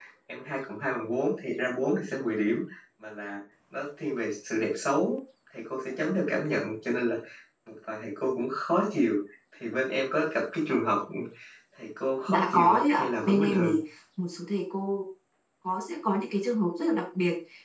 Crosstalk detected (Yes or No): Yes